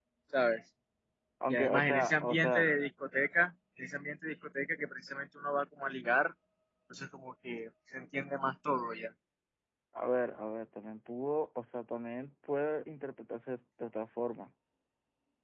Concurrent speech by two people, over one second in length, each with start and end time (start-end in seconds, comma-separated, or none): 1.5-2.7